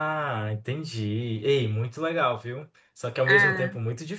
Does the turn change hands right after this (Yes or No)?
No